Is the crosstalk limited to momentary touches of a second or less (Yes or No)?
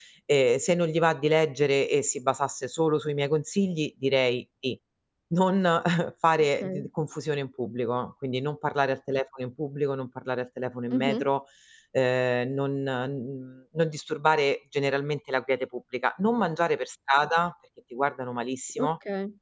Yes